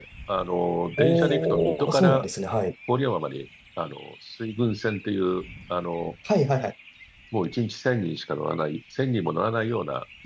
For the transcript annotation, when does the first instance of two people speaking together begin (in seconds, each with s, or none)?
1.0 s